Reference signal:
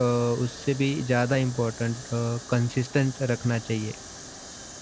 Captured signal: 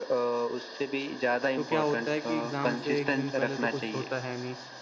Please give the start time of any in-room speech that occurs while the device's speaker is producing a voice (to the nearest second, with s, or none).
2 s